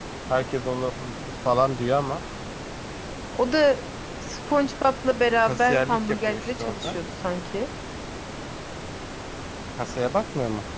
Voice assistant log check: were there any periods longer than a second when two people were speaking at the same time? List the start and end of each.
5.5-7.0

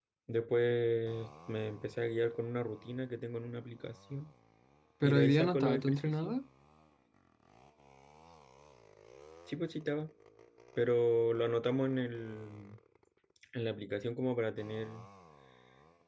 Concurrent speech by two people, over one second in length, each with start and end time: 5.0-6.4

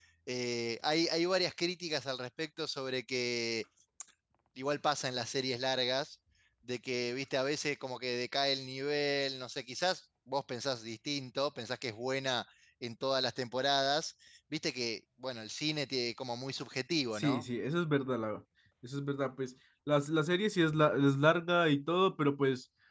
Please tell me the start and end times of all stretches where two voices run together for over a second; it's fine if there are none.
none

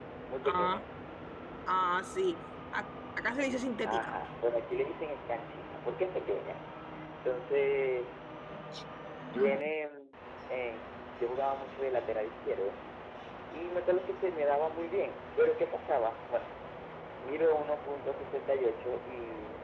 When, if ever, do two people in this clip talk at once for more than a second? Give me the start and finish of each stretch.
none

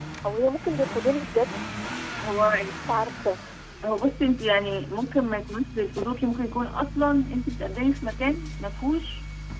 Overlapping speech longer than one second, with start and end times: none

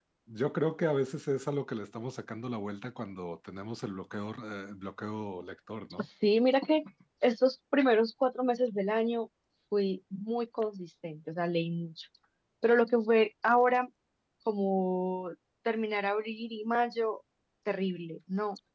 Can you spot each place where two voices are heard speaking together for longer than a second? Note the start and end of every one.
none

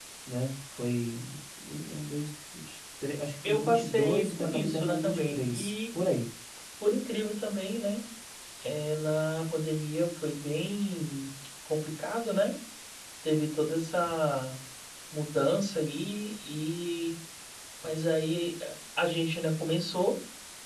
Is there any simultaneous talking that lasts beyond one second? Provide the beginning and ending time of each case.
3.4-5.7

